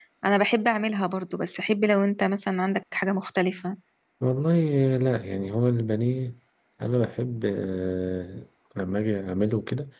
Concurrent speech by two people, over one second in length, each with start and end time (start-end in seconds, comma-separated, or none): none